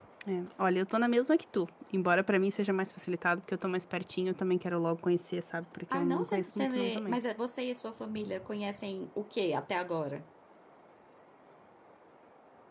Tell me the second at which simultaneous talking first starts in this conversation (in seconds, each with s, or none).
5.9 s